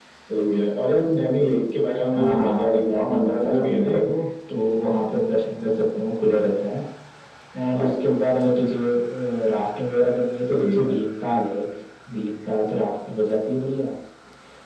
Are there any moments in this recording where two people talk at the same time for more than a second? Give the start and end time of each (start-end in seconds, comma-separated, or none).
2.1-4.1